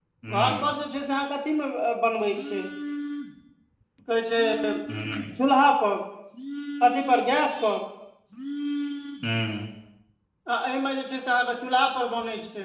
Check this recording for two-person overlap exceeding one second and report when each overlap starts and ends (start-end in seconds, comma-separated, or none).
none